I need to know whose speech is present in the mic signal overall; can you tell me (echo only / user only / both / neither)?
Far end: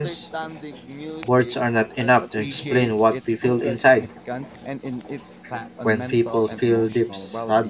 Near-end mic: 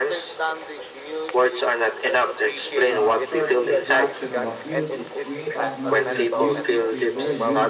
both